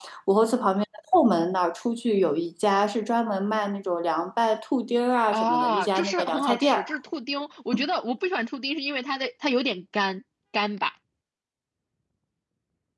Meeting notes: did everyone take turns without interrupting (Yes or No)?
No